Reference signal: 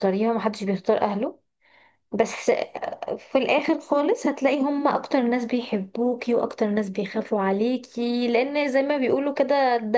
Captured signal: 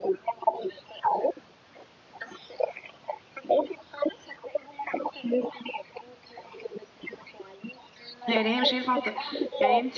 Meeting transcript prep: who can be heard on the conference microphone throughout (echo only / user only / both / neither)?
both